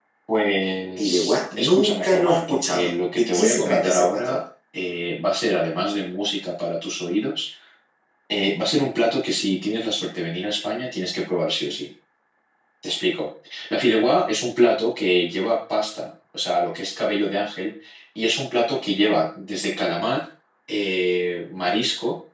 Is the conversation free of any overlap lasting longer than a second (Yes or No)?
No